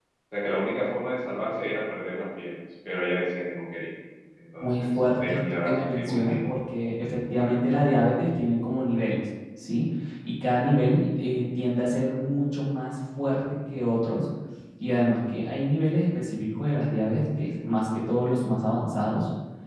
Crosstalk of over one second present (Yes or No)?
Yes